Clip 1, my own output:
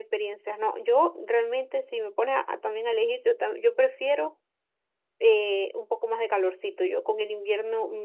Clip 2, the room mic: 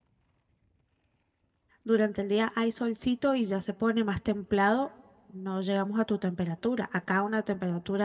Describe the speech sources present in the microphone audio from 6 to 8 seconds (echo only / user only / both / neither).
user only